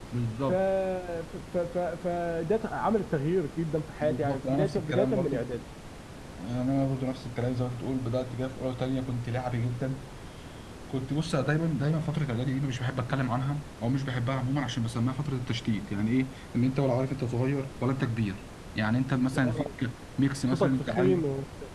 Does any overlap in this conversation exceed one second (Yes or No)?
Yes